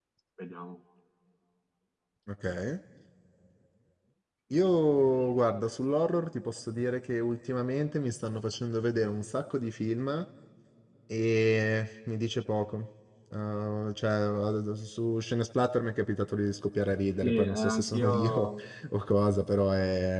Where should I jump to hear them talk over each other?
17.2 s

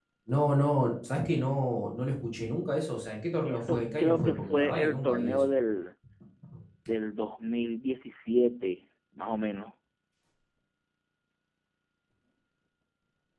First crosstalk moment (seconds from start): 3.4 s

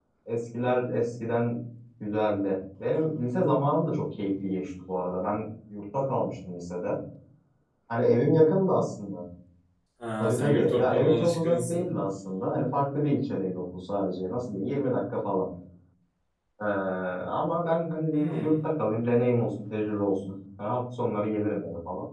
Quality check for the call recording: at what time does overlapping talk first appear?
10.2 s

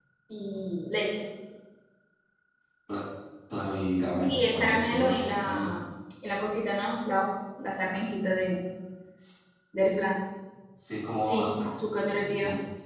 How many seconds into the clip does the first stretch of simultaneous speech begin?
4.3 s

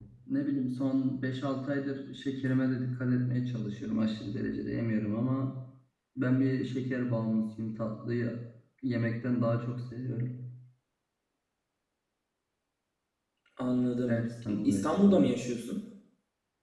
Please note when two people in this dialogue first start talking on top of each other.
14.1 s

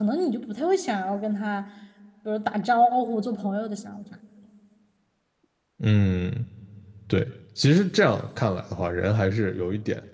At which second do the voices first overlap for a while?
none

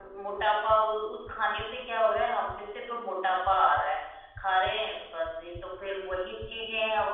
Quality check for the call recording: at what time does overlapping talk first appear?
none

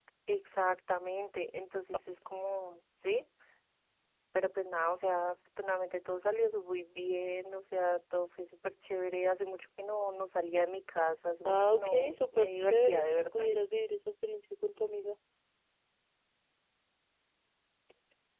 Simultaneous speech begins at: 11.4 s

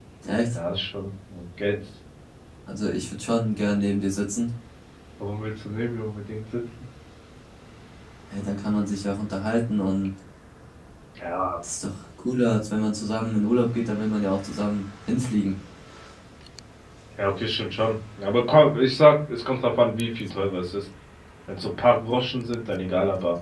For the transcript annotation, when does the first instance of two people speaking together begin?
none

